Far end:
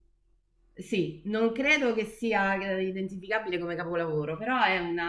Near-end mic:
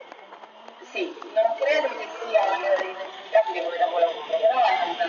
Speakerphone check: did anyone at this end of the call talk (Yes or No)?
No